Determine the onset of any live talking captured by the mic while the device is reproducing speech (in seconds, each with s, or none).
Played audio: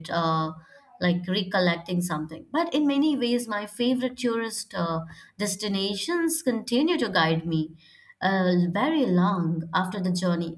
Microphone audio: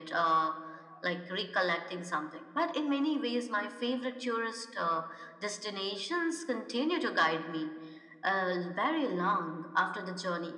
none